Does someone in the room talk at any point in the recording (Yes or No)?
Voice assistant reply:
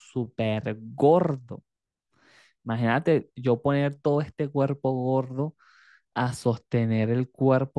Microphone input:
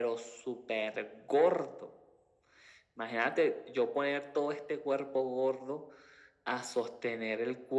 No